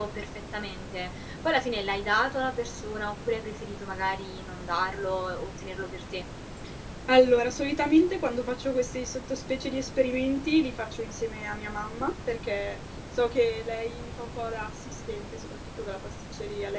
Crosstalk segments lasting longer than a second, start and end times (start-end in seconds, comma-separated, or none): none